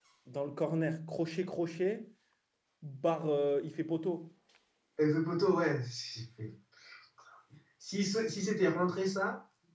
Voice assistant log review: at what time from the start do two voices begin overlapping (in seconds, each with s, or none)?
none